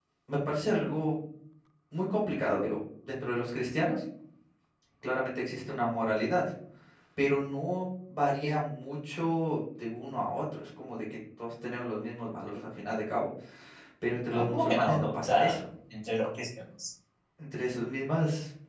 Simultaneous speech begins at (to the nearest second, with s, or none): 14 s